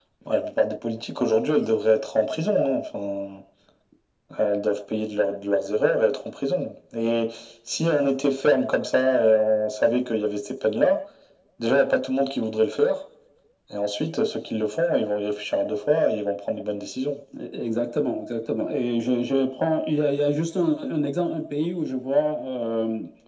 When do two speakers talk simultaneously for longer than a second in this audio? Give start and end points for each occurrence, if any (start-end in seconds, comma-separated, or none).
none